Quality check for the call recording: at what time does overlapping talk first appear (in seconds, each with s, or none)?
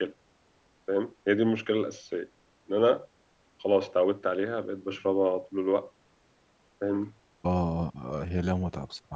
none